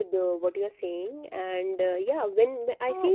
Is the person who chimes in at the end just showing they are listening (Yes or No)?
Yes